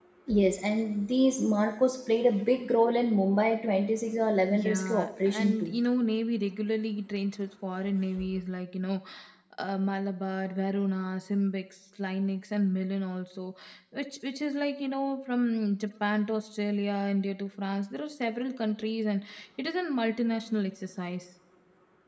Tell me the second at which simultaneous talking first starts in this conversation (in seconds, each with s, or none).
4.5 s